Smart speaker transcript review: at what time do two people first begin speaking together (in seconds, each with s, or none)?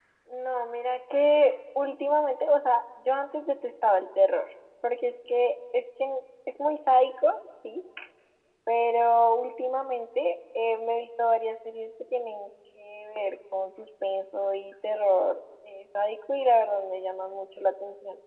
none